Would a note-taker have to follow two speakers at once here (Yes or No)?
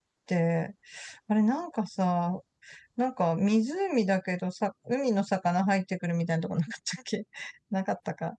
No